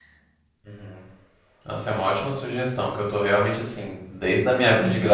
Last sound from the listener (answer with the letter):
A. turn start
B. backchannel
B